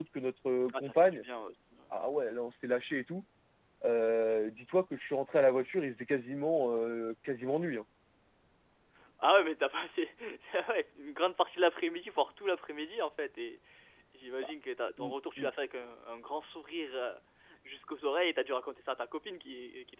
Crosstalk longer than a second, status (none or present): none